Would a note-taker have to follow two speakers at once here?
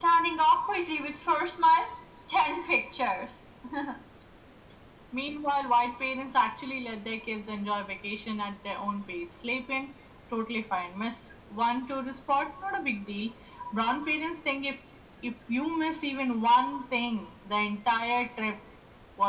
No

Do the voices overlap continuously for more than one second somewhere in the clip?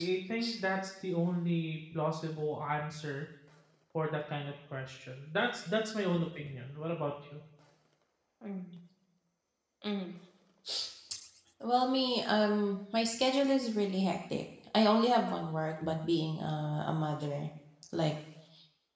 No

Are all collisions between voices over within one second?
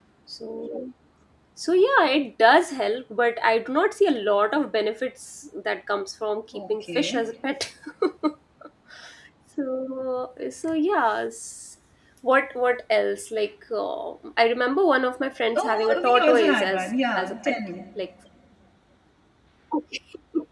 No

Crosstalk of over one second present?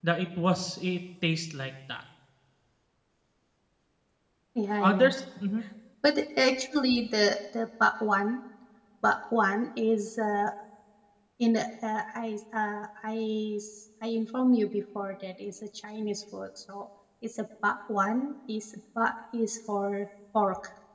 No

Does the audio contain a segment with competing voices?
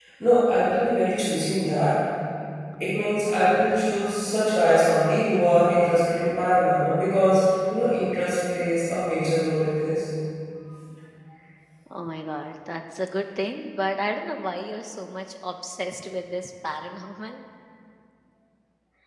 No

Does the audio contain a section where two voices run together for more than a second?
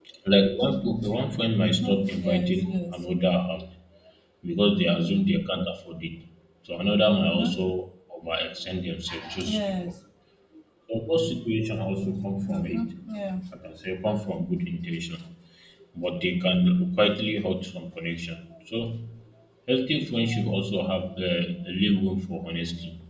Yes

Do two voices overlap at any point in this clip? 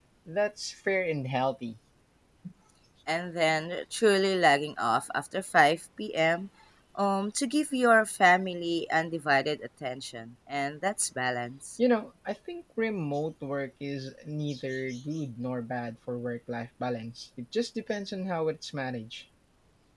No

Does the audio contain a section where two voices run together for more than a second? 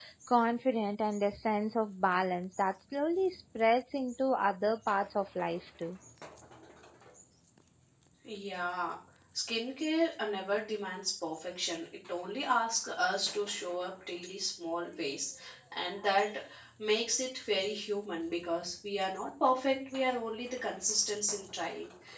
No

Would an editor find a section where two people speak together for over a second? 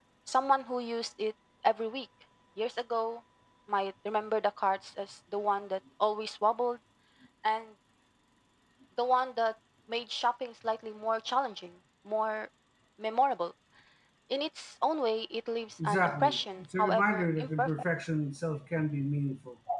Yes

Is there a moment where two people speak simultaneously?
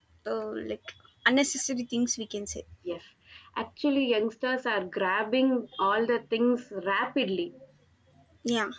No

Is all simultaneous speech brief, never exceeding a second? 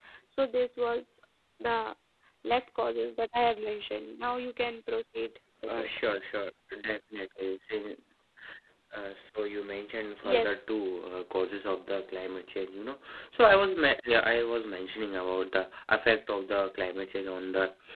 Yes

